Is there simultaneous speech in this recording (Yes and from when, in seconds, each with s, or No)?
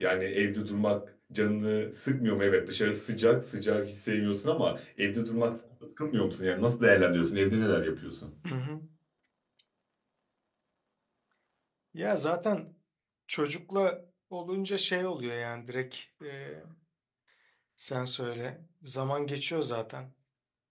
No